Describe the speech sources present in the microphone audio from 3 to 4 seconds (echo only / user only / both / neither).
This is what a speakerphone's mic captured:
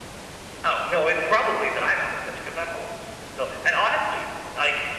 echo only